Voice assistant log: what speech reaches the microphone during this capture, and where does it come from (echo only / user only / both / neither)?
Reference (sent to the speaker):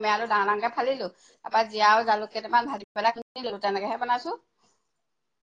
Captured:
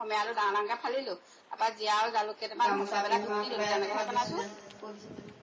both